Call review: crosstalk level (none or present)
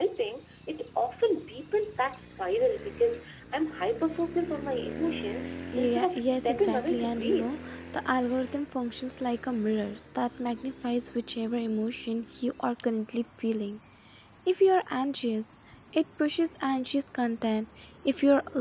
present